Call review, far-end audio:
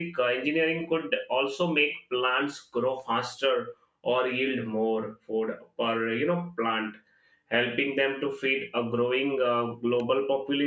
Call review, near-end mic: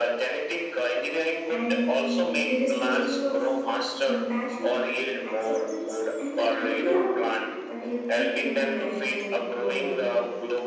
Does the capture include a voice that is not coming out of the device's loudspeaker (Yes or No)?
Yes